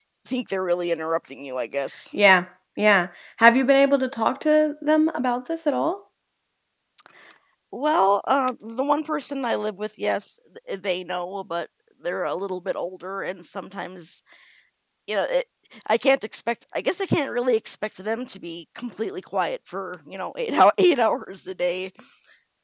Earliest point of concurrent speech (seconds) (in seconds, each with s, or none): none